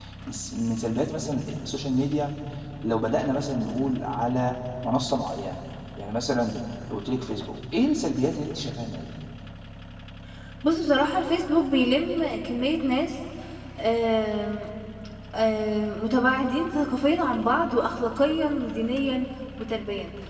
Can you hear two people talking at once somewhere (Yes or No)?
No